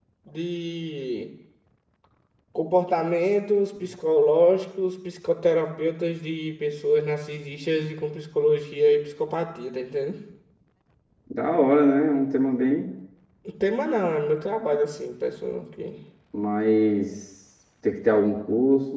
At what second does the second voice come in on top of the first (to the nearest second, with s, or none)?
none